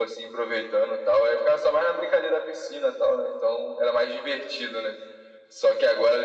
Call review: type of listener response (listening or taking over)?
listening